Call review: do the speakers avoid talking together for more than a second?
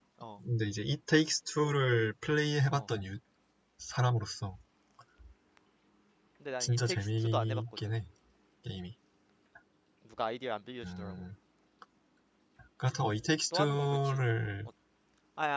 No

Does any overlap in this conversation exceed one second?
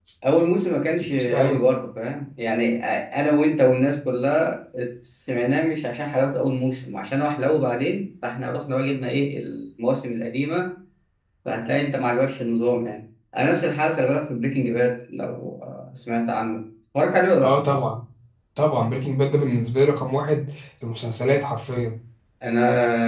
No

